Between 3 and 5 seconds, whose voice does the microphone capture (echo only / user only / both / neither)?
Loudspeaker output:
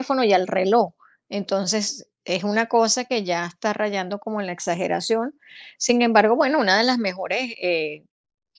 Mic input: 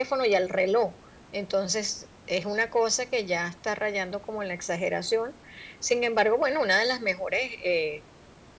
echo only